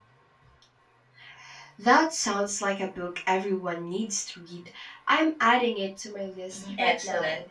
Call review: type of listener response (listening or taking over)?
taking over